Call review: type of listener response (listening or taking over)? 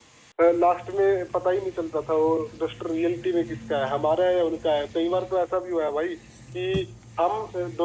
listening